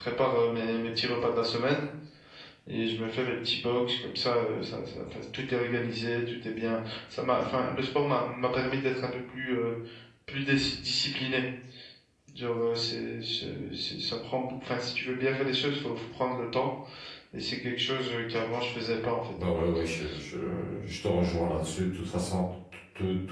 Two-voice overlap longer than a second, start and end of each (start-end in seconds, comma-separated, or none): none